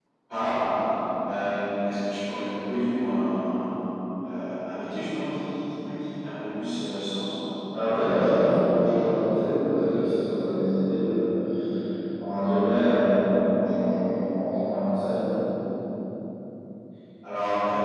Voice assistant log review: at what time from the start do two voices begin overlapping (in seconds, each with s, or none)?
none